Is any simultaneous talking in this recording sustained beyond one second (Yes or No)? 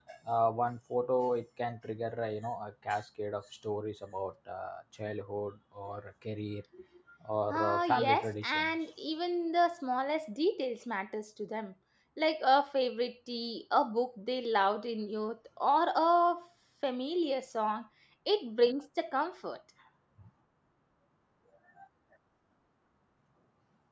Yes